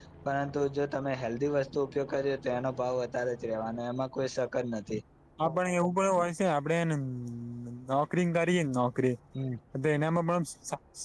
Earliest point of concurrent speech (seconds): none

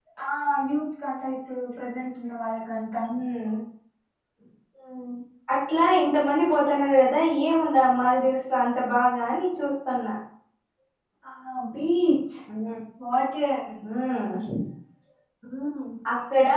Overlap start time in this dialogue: none

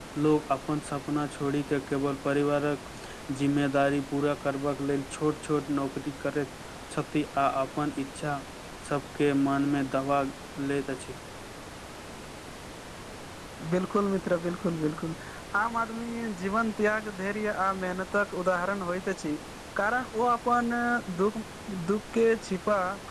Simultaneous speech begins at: none

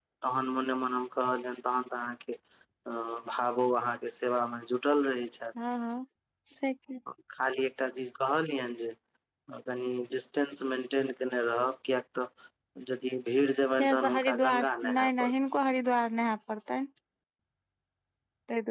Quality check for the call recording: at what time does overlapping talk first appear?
14 s

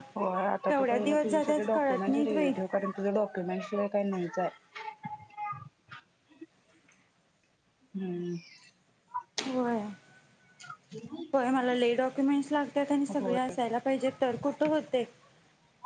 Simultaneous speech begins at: 1 s

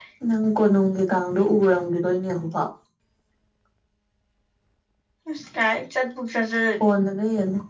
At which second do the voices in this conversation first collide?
none

